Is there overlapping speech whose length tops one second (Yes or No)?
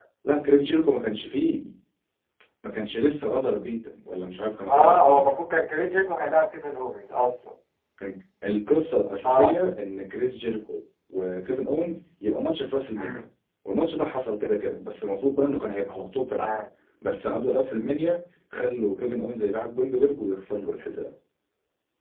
No